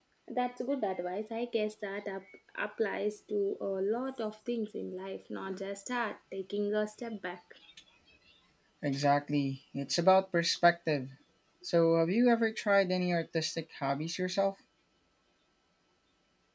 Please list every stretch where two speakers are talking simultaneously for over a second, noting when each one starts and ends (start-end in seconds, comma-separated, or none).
none